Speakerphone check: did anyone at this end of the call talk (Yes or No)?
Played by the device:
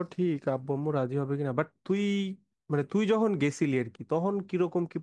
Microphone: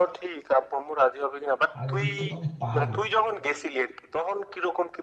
Yes